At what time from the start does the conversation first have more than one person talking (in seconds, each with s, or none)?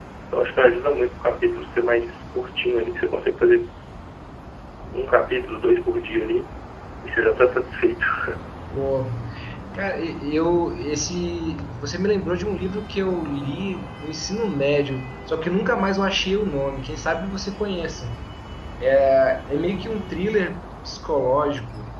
none